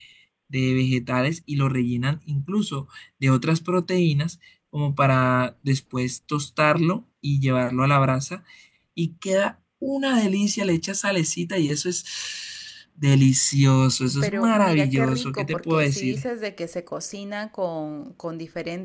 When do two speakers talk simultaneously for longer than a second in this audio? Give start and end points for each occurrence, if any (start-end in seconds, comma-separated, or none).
14.2-16.2